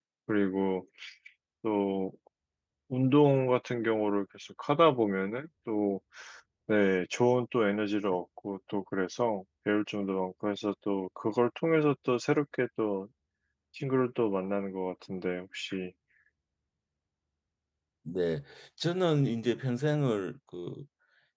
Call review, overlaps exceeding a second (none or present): none